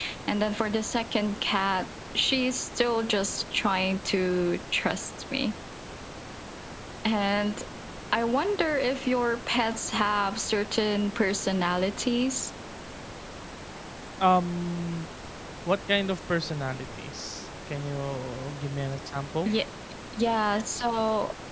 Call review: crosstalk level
none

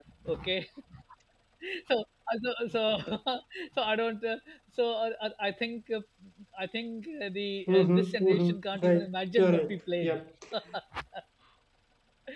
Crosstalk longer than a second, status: present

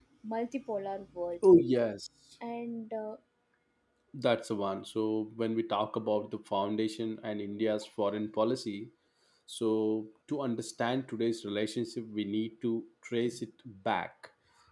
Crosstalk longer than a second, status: none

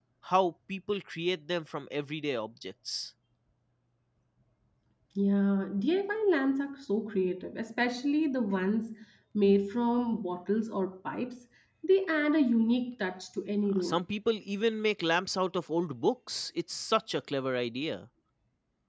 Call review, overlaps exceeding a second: none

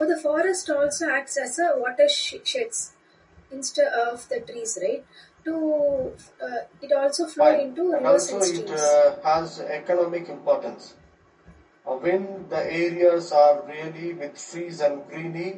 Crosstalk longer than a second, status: present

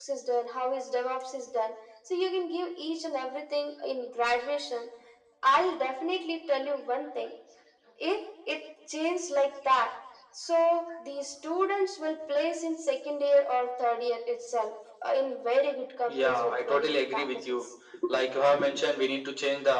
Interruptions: present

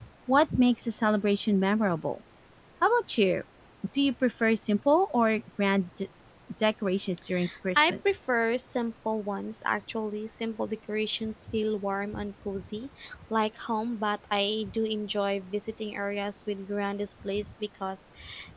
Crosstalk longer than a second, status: none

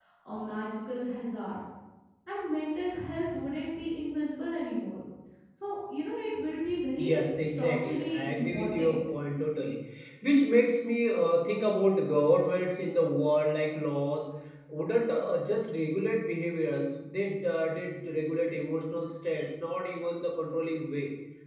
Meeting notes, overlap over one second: present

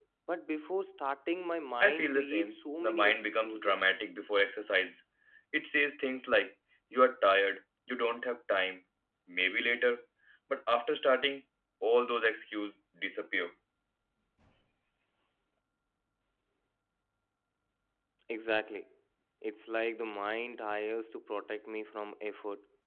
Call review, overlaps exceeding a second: present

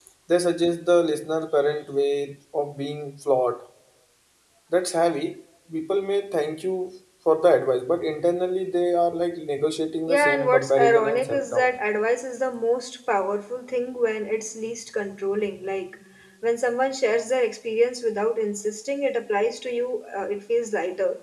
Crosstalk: present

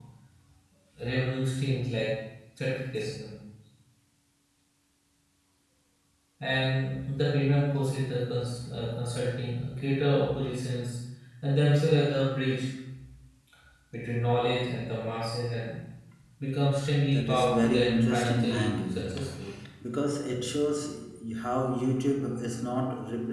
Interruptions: present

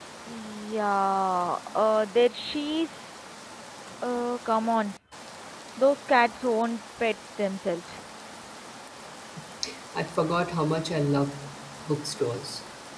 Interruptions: none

